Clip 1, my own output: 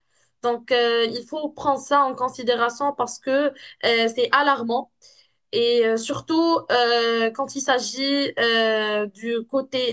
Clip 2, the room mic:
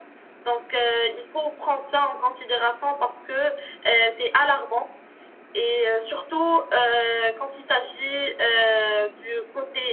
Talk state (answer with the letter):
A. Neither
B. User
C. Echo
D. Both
C